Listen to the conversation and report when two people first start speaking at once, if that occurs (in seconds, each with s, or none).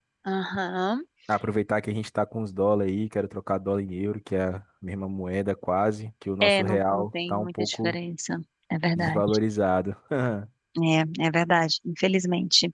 6.4 s